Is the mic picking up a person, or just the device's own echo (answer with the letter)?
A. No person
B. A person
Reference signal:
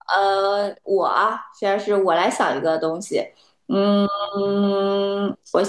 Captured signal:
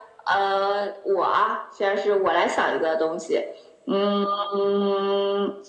A